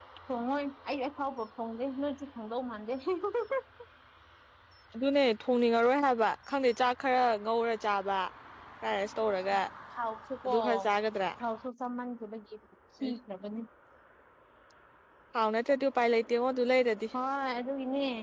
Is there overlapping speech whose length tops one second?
No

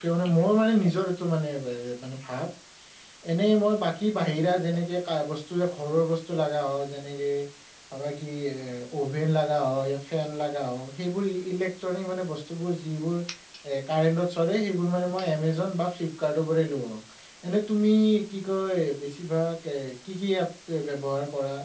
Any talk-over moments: No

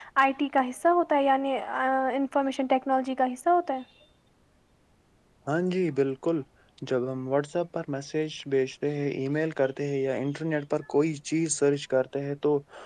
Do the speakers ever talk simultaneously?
No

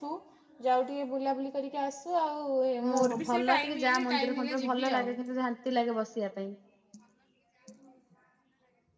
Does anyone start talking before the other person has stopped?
Yes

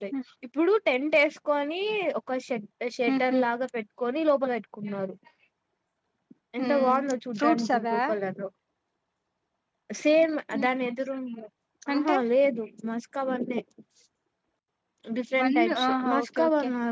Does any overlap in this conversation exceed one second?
Yes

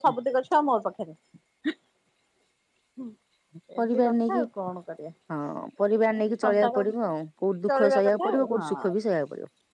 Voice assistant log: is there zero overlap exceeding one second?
No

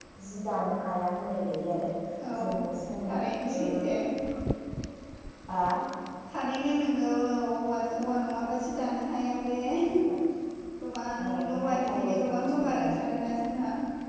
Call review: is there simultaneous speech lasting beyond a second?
Yes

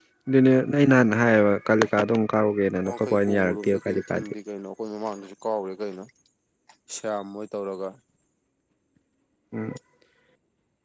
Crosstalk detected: Yes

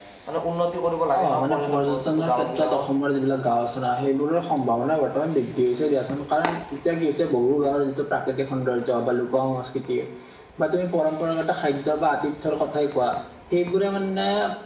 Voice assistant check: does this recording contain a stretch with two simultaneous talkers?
Yes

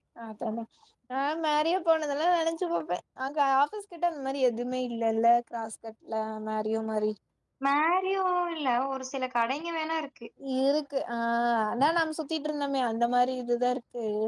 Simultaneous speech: No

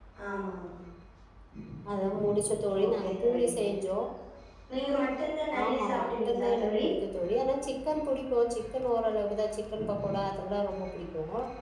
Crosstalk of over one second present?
Yes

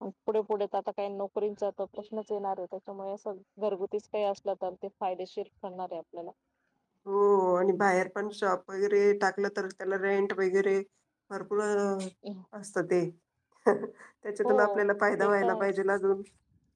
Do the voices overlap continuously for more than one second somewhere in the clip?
No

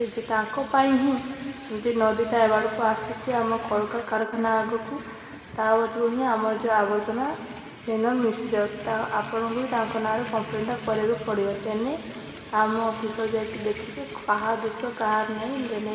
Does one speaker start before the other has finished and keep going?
No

